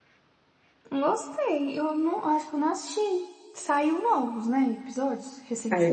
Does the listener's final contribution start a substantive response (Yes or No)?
Yes